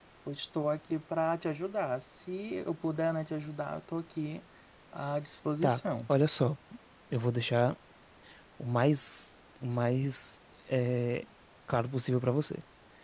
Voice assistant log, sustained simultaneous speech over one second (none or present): none